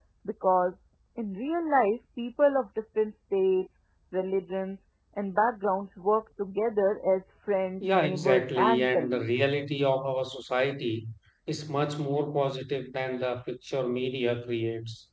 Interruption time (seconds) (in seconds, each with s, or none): 7.8 s